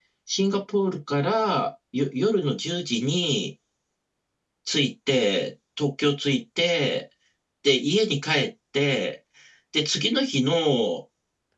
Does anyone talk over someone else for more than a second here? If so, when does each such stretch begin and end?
none

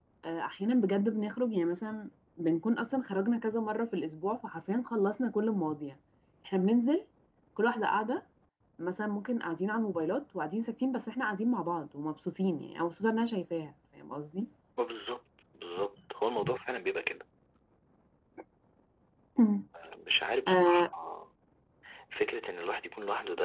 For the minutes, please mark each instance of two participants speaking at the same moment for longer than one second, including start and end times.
none

